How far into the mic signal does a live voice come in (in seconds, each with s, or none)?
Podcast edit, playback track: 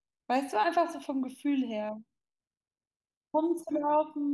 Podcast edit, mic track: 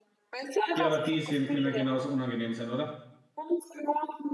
0.7 s